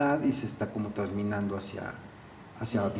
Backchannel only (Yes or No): Yes